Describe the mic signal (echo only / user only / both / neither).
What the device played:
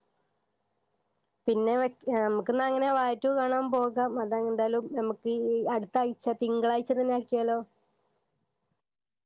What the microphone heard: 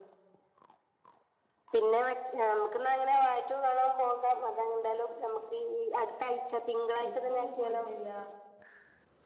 both